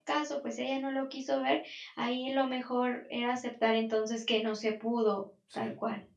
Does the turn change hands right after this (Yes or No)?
Yes